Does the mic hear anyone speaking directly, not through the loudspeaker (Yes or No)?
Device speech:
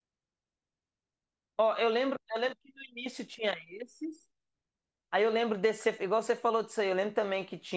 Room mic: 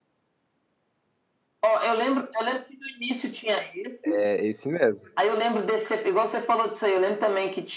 Yes